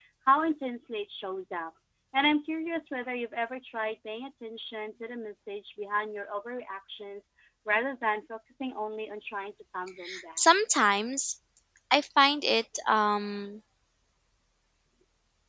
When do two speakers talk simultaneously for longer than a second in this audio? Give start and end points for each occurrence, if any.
none

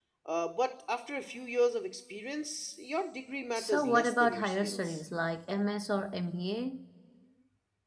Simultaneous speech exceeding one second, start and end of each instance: 3.5-5.0

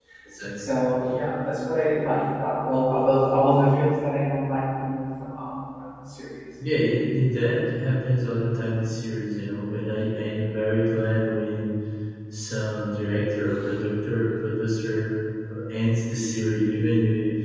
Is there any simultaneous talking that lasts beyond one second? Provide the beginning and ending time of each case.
none

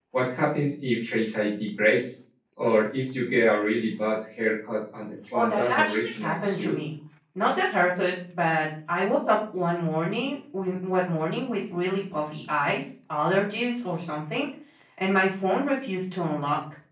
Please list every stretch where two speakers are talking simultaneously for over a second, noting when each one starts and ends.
5.3-6.8

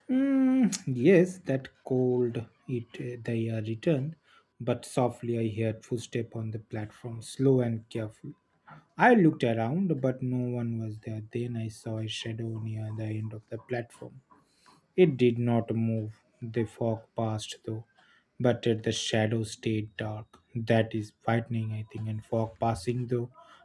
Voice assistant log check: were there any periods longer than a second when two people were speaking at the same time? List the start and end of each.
none

